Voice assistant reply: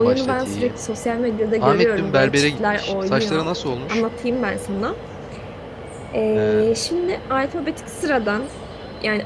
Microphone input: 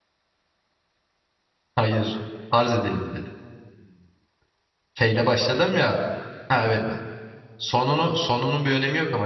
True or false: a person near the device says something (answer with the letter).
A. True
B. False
A